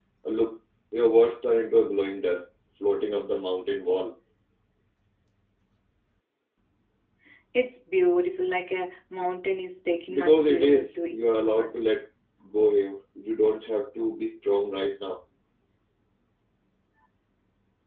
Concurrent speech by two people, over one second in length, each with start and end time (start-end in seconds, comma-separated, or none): 10.1-11.7